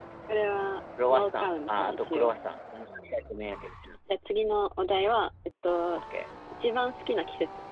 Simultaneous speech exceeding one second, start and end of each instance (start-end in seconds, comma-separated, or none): 1.1-2.3